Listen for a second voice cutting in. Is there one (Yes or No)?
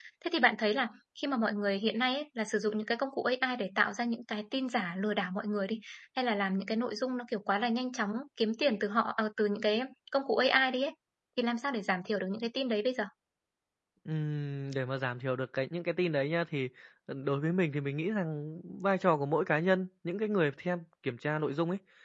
No